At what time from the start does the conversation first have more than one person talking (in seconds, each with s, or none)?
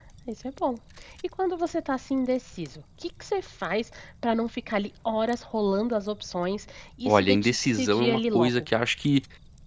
7.1 s